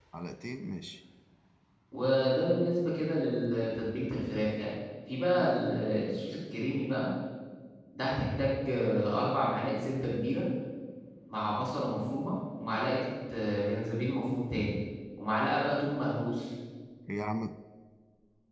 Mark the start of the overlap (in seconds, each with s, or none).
none